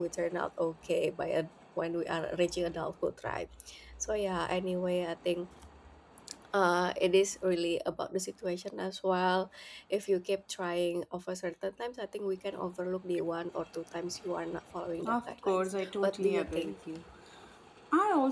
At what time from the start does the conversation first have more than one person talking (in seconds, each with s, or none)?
15.0 s